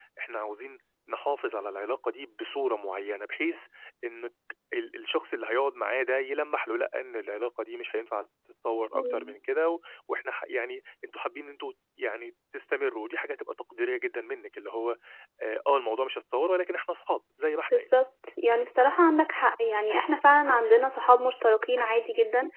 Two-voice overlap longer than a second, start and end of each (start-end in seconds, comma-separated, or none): none